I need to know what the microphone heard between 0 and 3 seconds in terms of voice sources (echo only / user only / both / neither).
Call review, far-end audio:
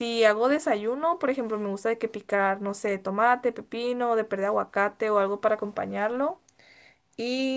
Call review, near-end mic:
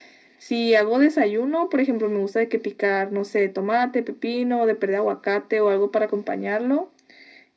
echo only